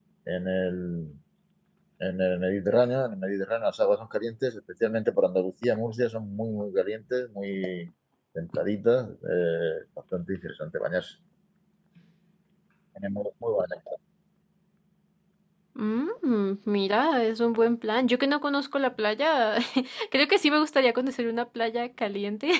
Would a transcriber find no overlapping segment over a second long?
Yes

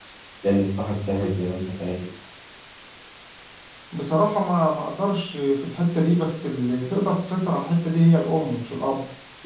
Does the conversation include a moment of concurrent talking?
No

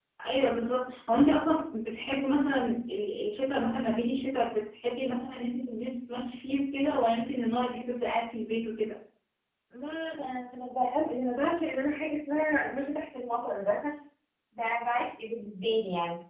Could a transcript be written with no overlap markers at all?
Yes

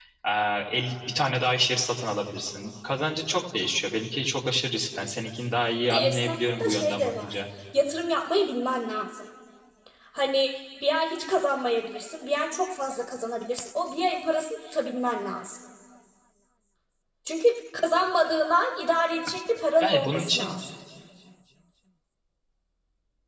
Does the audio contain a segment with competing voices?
Yes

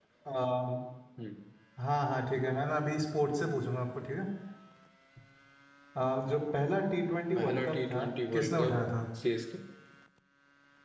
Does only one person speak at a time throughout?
No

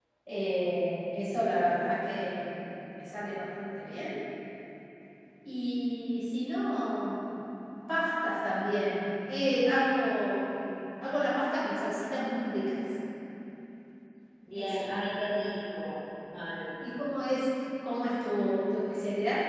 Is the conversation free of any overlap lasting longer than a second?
Yes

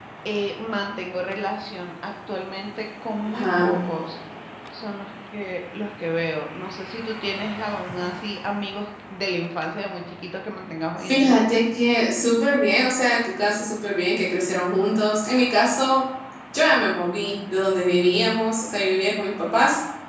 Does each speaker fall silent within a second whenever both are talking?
Yes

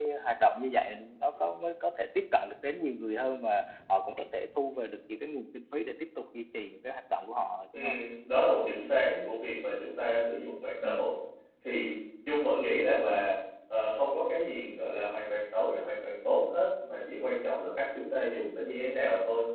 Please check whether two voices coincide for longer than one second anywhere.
No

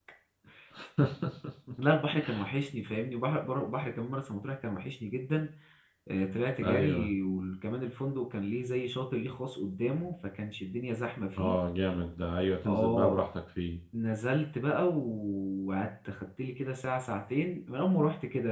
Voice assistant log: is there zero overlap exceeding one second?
Yes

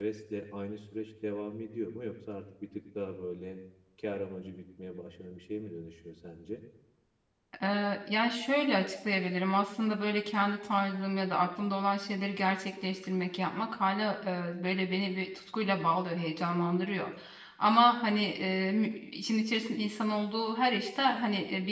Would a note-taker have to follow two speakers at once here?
No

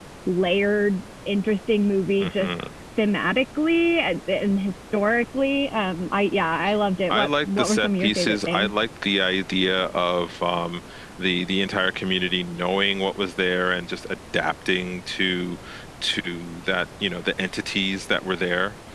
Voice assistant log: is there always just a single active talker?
No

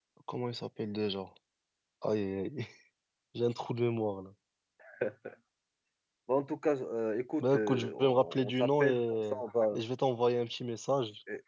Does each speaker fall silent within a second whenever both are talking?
No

